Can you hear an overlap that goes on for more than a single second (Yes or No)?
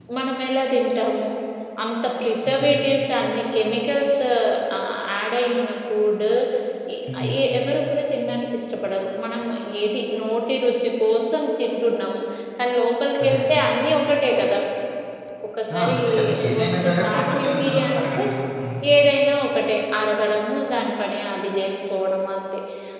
Yes